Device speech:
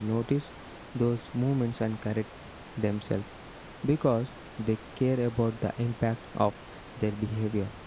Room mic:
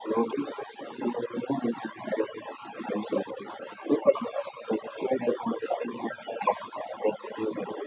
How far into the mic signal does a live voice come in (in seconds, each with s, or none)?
none